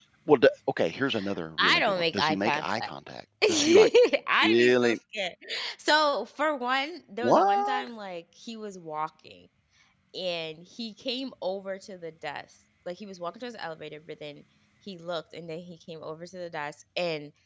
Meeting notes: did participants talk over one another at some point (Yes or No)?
Yes